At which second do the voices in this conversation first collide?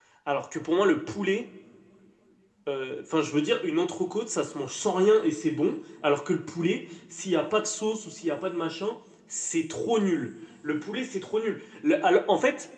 none

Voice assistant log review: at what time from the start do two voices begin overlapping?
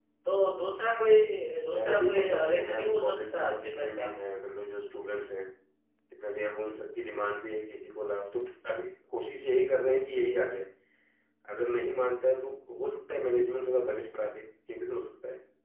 1.7 s

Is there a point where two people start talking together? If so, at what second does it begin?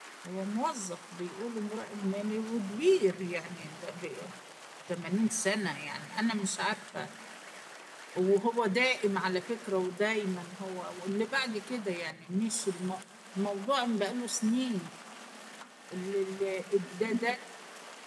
none

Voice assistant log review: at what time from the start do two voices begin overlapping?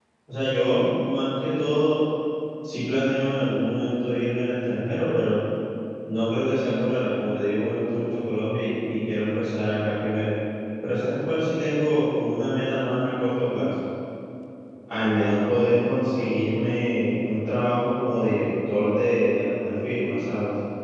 none

